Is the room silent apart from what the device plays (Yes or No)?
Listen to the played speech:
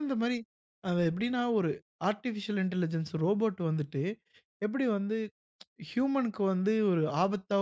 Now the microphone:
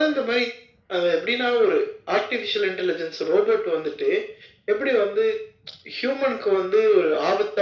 Yes